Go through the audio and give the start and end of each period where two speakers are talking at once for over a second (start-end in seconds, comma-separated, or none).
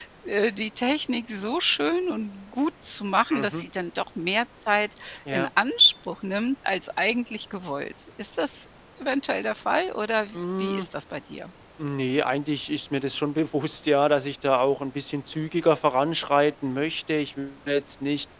none